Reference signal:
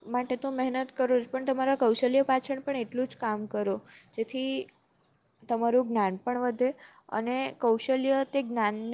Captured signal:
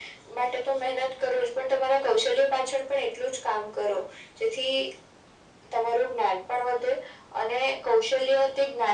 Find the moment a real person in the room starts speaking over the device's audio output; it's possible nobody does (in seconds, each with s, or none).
none